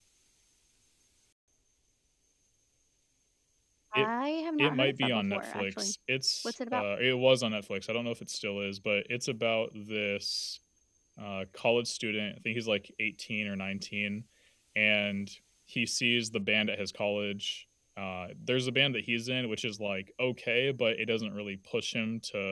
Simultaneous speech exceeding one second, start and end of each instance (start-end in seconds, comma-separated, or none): 4.6-5.9